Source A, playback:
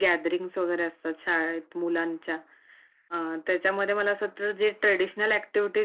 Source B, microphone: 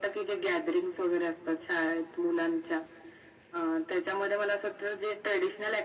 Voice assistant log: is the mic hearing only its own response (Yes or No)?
Yes